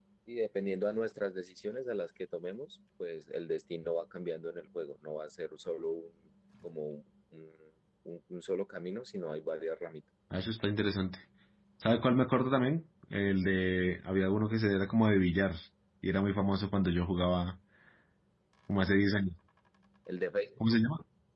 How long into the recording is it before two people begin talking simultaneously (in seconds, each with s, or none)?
none